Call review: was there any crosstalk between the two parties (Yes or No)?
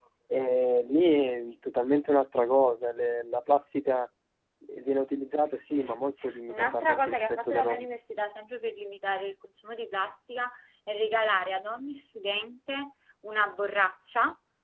Yes